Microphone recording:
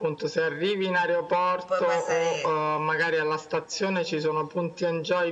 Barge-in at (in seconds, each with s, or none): 1.7 s